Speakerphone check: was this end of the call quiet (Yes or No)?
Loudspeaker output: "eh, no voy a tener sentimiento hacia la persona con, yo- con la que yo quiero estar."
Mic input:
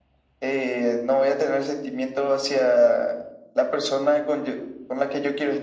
Yes